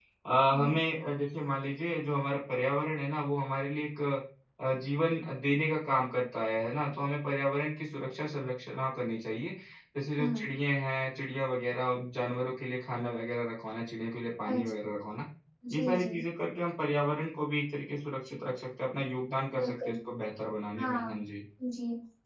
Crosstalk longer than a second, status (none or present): none